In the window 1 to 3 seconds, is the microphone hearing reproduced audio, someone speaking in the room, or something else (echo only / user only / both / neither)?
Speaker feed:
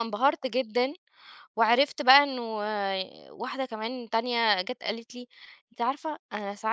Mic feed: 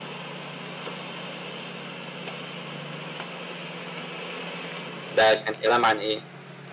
neither